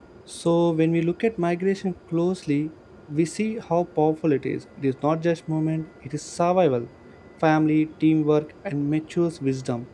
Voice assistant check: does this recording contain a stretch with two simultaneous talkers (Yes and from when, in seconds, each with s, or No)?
No